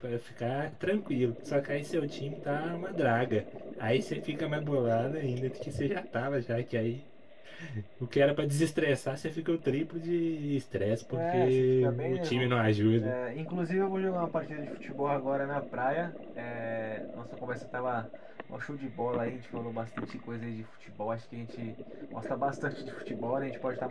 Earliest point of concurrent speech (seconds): 11.1 s

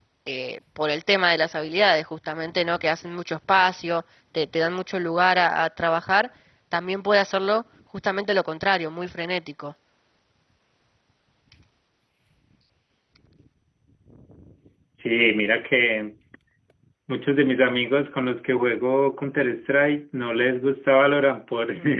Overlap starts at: none

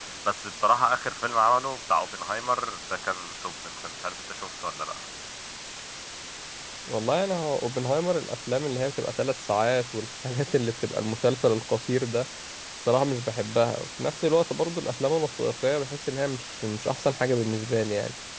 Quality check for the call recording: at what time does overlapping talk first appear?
none

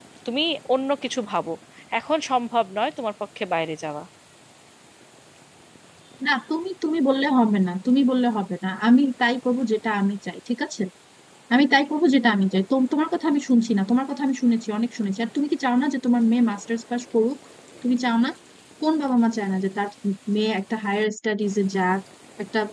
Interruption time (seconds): none

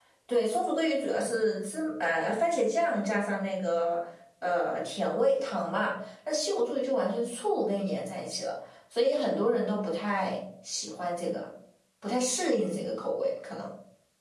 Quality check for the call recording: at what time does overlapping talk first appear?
none

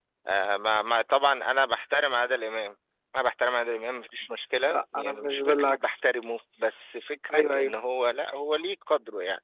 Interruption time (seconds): 4.7 s

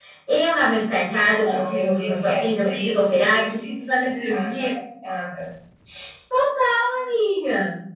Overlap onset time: 1.1 s

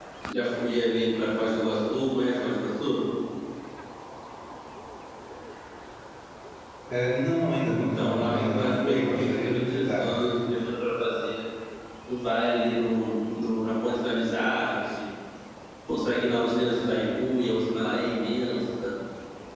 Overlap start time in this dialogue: 7.8 s

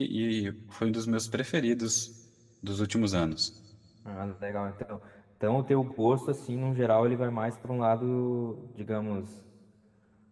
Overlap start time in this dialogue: none

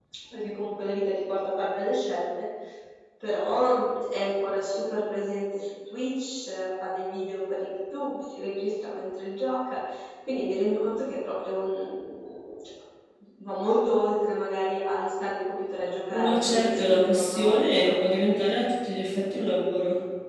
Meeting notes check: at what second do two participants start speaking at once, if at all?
16.1 s

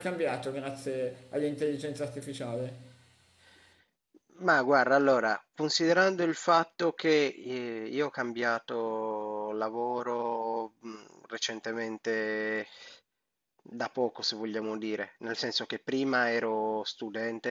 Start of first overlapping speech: none

